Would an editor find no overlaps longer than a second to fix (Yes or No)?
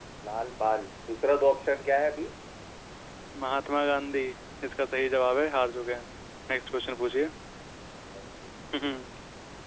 Yes